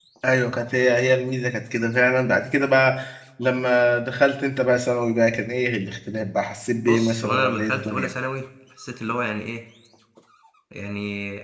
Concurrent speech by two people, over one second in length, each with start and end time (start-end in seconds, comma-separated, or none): 6.9-8.1